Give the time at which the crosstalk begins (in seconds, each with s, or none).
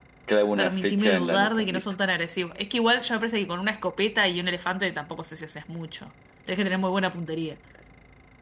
0.6 s